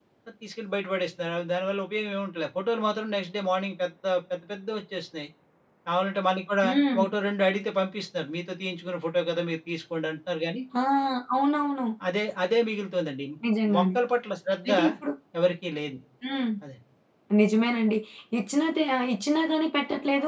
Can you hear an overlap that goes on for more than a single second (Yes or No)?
No